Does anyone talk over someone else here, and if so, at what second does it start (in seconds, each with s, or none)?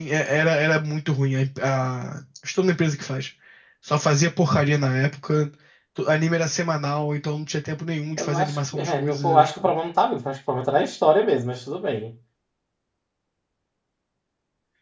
8.2 s